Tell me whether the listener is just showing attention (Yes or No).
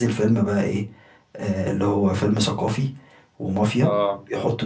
Yes